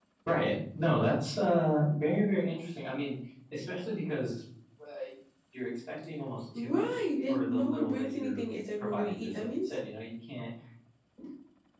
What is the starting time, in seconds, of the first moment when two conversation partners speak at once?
6.5 s

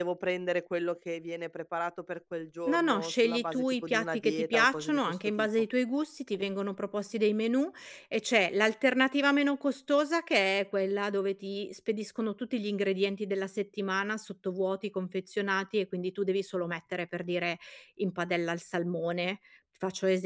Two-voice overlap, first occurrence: 2.6 s

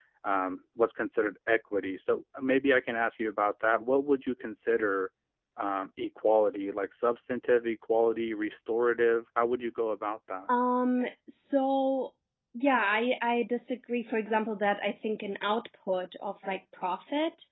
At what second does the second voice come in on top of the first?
none

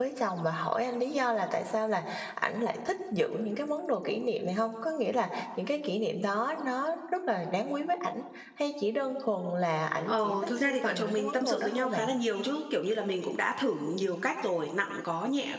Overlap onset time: 10.1 s

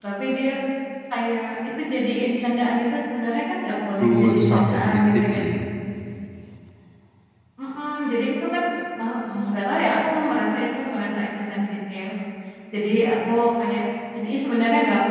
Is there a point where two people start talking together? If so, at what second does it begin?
4.0 s

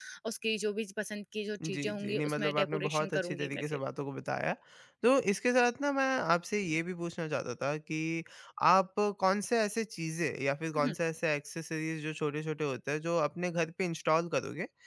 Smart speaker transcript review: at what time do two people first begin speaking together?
1.6 s

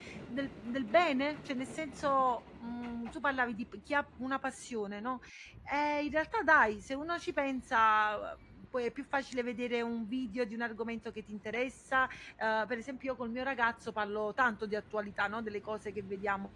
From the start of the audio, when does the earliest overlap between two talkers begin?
none

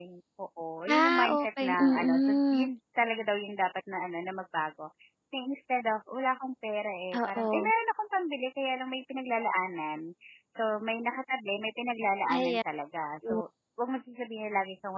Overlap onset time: 0.9 s

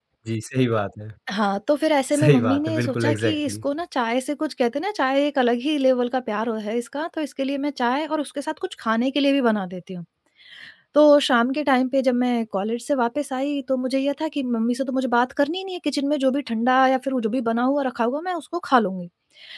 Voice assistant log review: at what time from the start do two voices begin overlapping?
2.2 s

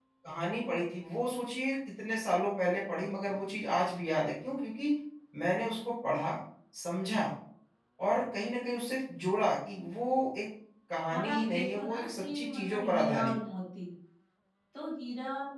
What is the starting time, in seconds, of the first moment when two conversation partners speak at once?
11.1 s

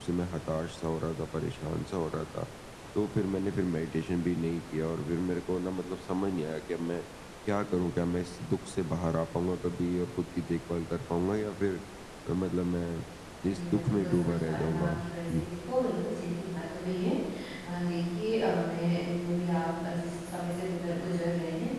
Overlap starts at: 13.5 s

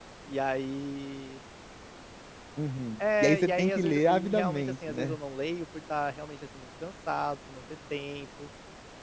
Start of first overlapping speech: 3.0 s

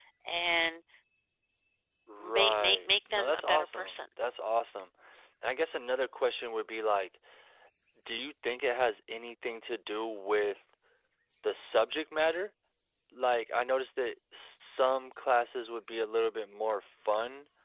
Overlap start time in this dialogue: 2.2 s

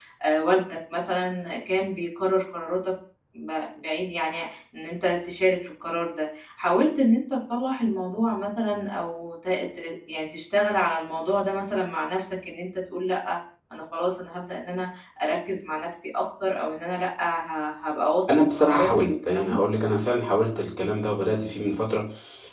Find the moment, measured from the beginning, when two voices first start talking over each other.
18.3 s

